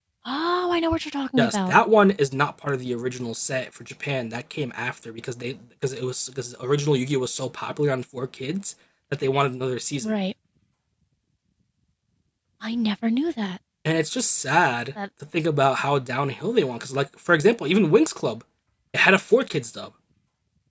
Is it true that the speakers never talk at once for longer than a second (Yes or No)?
Yes